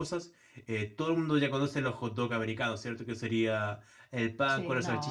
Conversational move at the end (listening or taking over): listening